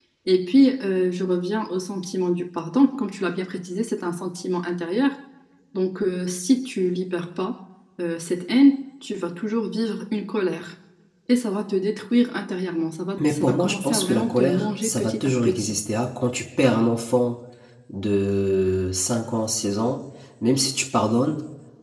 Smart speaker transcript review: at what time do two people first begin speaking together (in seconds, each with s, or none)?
13.2 s